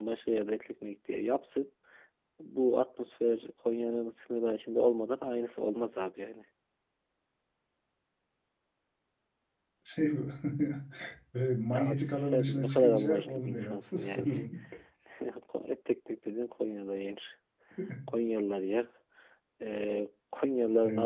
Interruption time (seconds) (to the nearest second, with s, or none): 12 s